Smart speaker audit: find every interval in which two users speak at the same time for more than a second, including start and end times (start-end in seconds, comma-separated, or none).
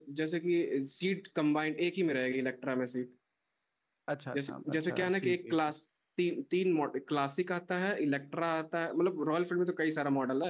4.4-5.7